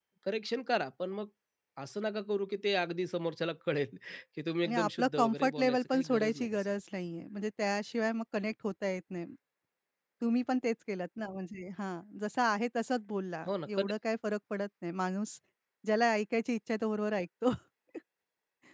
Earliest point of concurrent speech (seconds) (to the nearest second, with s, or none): 5 s